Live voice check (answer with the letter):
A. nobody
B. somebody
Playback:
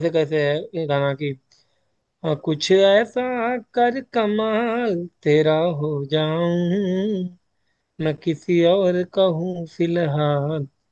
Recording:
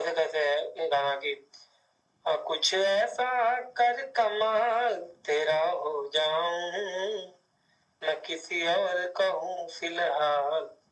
A